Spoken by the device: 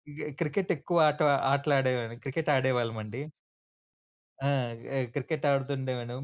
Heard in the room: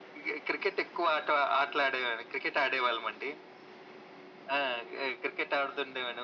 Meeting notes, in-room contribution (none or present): none